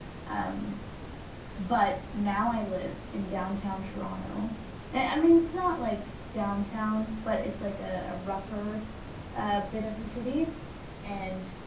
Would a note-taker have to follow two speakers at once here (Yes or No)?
No